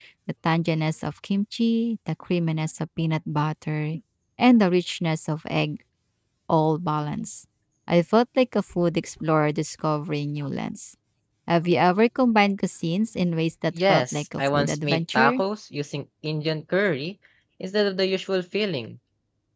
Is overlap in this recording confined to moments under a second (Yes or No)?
No